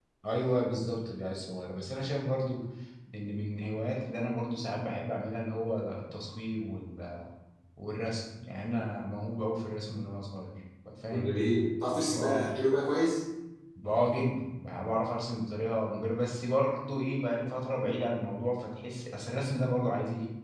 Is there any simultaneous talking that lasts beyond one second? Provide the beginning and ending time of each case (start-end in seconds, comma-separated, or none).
none